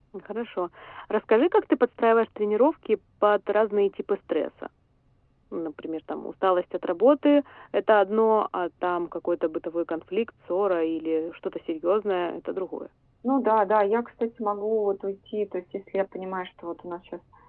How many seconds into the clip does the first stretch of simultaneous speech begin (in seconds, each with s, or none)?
none